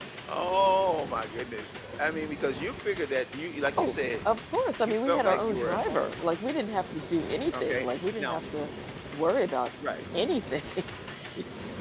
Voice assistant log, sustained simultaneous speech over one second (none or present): present